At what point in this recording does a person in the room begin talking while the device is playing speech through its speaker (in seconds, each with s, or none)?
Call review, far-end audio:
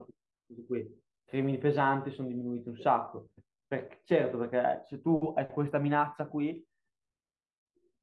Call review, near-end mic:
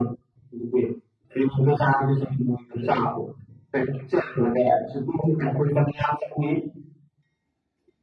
none